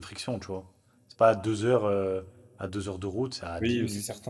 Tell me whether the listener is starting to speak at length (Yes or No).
Yes